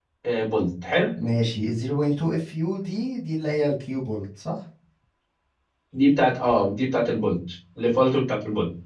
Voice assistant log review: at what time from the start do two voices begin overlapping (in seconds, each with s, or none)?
none